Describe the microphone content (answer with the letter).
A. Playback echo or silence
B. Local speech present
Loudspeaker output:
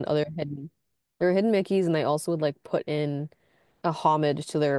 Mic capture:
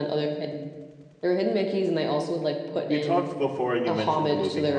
B